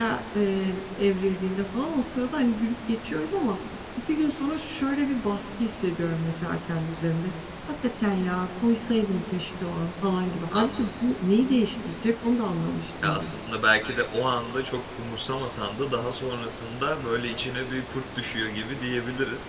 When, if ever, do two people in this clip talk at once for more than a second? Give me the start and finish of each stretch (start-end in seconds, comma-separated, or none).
none